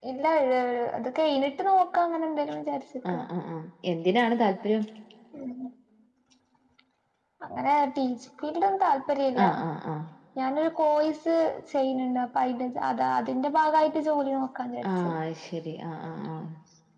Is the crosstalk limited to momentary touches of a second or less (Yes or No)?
Yes